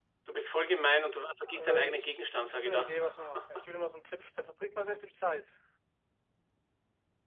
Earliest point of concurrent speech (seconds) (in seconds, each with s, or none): 1.5 s